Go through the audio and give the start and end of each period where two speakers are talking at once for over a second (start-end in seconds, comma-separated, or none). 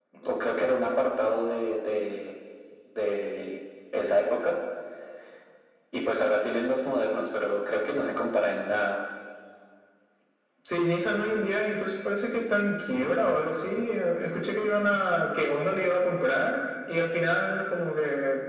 none